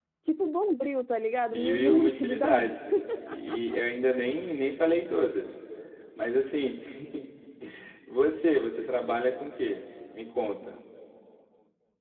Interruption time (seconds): 1.5 s

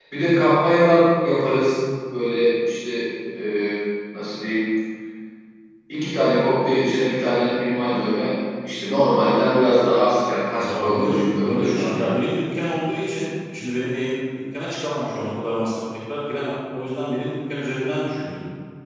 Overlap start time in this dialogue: 10.6 s

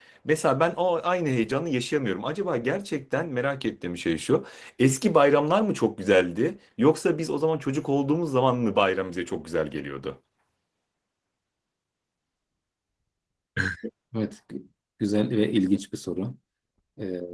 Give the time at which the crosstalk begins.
none

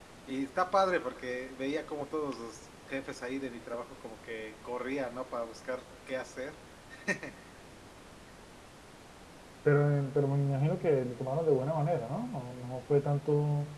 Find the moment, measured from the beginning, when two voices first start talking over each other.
none

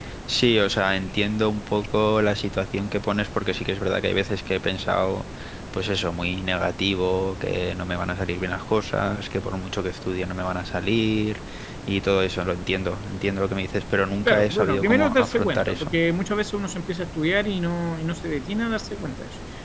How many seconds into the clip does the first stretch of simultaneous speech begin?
14.2 s

